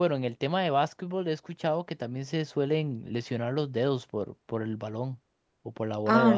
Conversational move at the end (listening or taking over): taking over